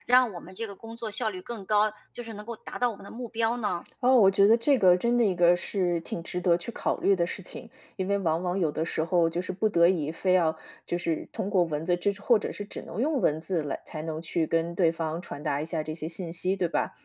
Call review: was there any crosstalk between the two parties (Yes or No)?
No